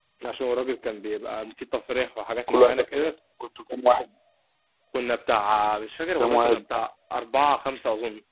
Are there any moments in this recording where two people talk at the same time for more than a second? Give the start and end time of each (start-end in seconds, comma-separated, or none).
none